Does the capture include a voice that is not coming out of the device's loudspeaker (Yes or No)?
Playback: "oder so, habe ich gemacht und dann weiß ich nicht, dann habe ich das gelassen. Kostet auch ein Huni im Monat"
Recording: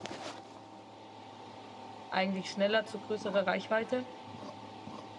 Yes